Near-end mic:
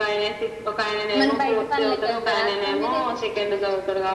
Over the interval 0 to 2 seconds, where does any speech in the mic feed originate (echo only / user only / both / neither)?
both